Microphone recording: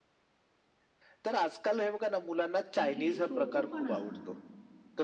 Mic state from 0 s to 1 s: neither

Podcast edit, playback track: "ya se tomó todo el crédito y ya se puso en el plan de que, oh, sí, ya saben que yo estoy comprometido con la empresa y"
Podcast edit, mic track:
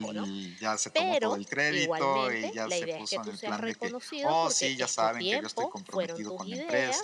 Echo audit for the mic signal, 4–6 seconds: both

